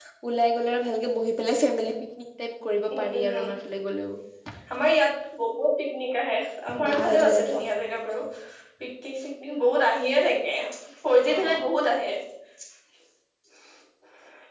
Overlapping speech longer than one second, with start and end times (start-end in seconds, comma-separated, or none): 6.9-8.2